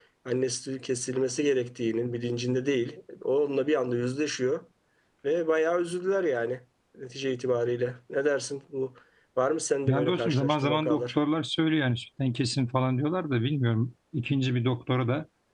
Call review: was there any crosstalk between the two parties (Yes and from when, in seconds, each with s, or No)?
Yes, from 9.9 s